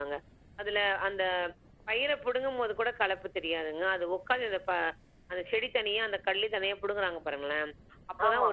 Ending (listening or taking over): listening